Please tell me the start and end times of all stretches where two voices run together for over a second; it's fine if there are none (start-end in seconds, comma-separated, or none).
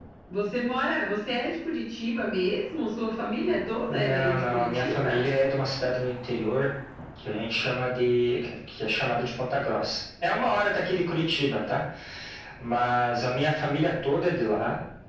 3.9-5.3